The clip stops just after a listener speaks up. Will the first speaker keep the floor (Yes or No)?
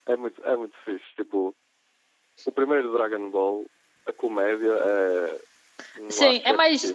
No